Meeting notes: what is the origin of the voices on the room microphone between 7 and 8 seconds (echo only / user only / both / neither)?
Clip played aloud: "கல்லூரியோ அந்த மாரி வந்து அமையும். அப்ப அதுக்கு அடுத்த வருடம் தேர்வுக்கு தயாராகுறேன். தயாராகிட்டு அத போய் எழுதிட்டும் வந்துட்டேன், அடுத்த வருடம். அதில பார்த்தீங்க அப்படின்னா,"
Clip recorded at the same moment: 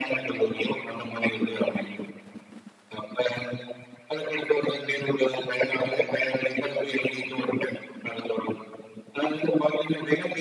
echo only